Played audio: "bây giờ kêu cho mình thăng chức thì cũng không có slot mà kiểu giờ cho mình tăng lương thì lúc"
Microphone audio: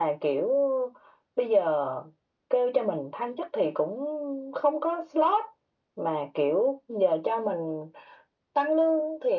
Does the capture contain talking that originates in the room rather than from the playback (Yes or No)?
No